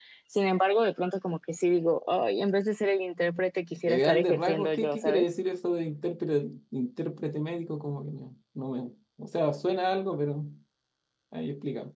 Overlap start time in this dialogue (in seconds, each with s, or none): 3.9 s